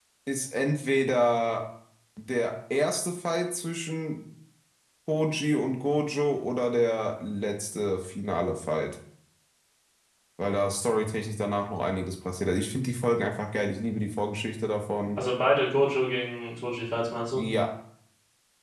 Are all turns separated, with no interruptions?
Yes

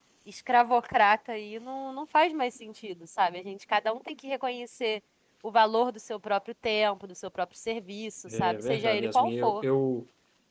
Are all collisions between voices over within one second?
No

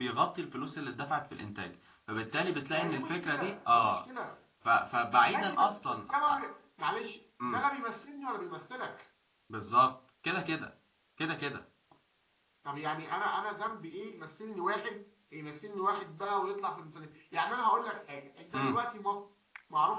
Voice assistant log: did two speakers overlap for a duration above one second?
Yes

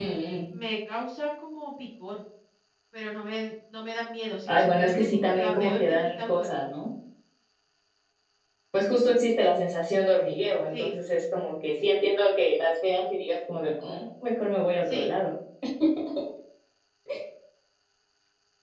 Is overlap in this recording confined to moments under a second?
No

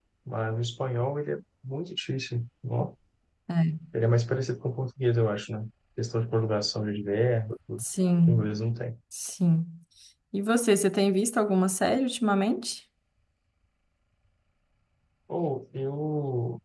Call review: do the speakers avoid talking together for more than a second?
Yes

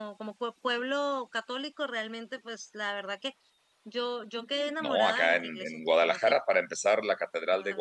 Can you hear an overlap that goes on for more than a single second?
Yes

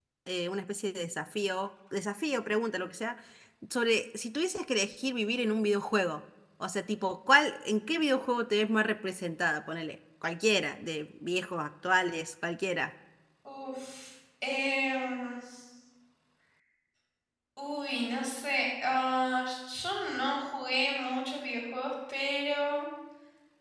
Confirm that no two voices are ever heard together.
Yes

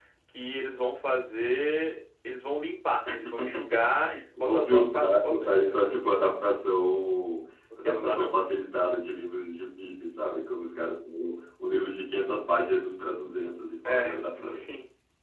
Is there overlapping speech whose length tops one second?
Yes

